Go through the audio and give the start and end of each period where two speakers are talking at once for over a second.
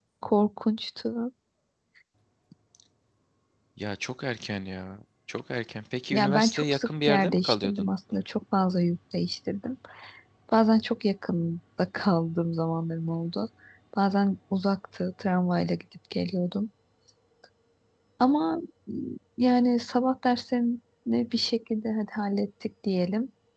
6.1-7.9

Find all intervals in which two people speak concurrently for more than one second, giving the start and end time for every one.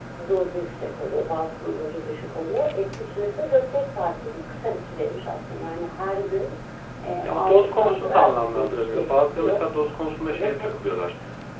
7.2-9.6

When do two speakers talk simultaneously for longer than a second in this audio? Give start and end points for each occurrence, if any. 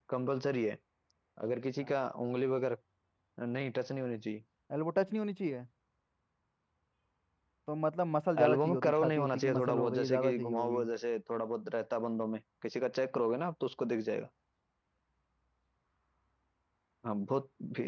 8.4-10.9

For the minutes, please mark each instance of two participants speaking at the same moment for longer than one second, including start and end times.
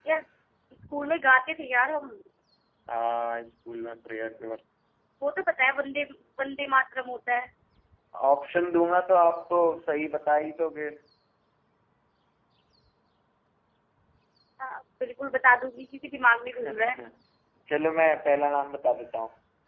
none

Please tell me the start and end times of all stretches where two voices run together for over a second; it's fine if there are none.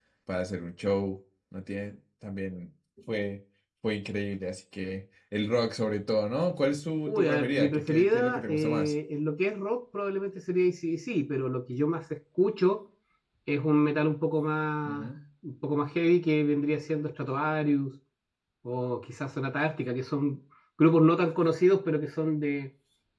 7.1-8.9

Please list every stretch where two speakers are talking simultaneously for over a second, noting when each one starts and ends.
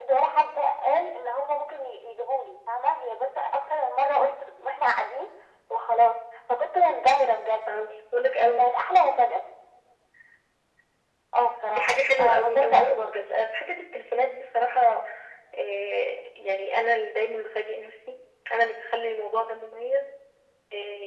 11.8-13.2

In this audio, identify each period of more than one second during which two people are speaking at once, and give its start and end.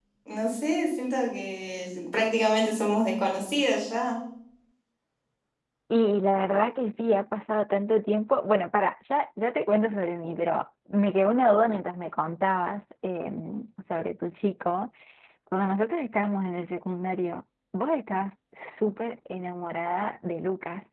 none

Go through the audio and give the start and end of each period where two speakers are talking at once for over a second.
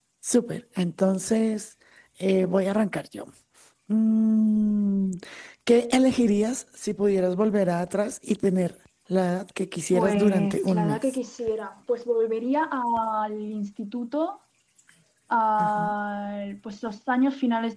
9.9-11.2

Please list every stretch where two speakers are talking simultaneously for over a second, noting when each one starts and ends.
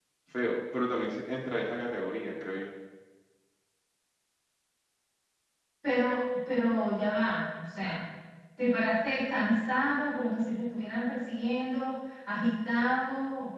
none

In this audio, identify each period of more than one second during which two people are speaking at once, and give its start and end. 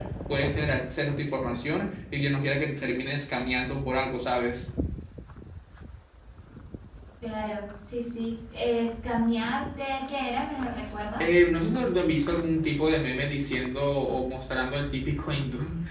none

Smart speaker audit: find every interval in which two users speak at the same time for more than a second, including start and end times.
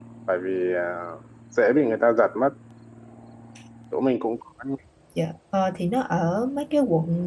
none

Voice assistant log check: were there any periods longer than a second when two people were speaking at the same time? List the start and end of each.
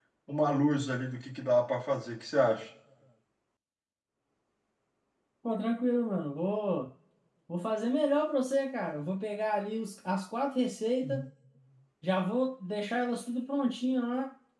none

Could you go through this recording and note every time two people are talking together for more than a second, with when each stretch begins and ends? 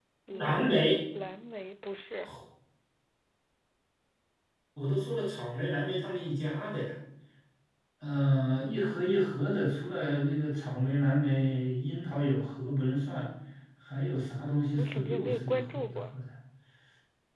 14.7-16.0

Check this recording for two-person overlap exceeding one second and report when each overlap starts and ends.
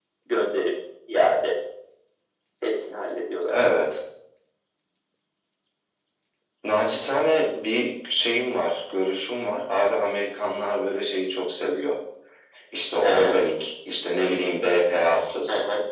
none

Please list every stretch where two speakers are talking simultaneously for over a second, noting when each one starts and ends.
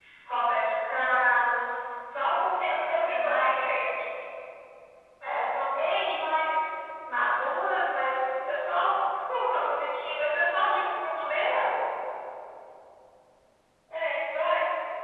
2.6-3.9

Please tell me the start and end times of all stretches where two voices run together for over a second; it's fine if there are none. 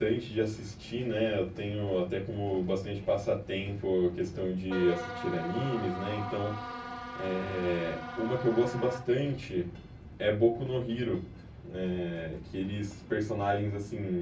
none

